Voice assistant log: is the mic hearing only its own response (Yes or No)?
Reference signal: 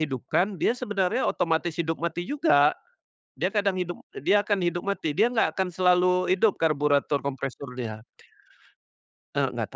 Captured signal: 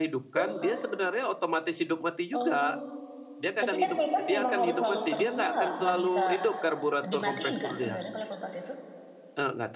No